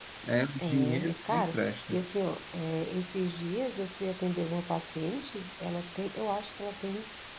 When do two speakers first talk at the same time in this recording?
0.6 s

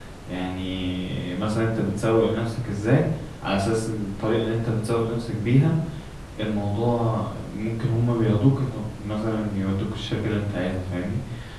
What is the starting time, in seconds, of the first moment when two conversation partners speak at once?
none

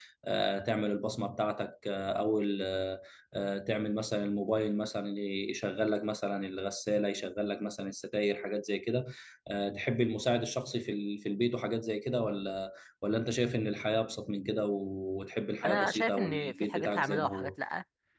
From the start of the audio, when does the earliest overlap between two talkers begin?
15.6 s

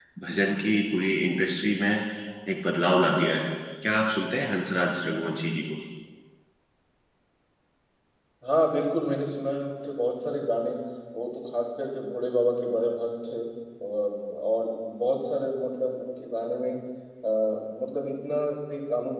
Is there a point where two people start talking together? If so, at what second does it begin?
none

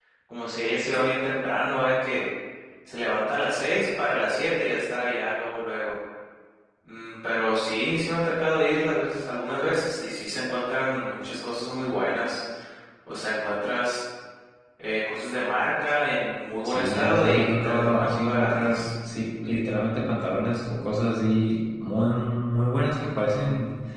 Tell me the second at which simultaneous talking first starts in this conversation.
16.6 s

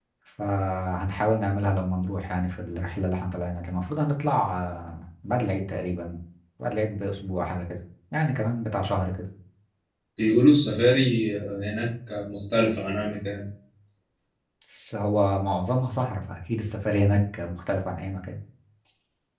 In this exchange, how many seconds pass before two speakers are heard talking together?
none

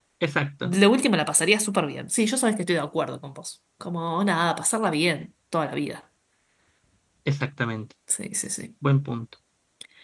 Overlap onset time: none

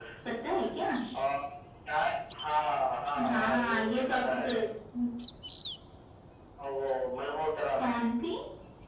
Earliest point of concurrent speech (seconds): 3.3 s

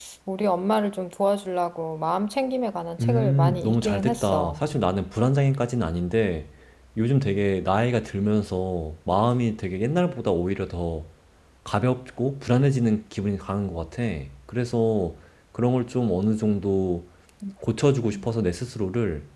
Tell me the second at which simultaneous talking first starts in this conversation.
3.0 s

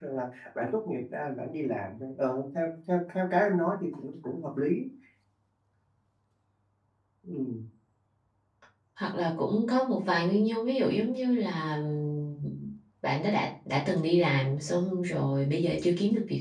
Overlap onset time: none

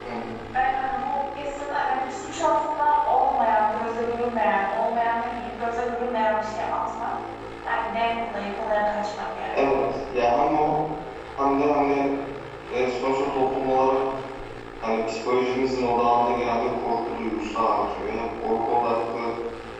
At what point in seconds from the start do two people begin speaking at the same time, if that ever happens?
none

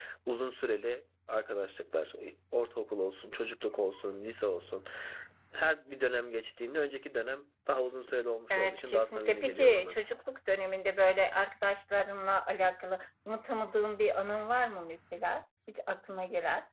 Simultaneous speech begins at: 8.5 s

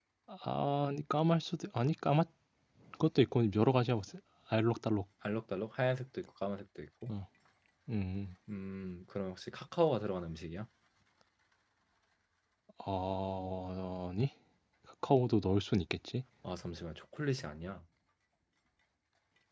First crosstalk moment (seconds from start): none

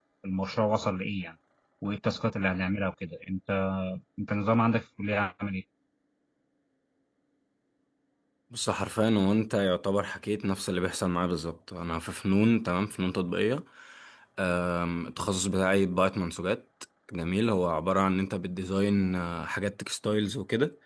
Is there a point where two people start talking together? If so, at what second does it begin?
none

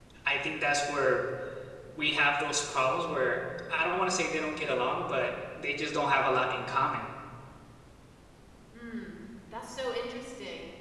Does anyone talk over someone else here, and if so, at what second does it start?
none

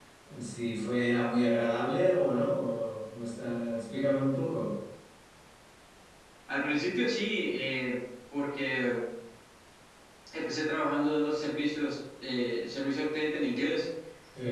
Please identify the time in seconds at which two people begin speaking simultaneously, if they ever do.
none

